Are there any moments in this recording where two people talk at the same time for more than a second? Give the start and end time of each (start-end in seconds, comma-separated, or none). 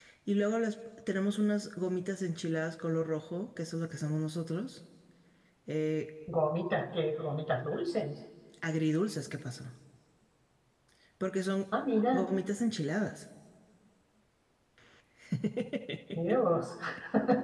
none